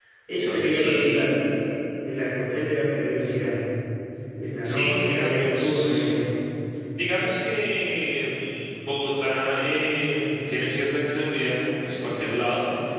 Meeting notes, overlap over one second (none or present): present